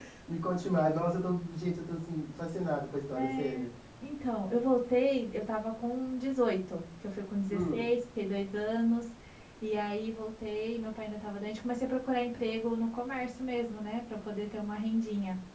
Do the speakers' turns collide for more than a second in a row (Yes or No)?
No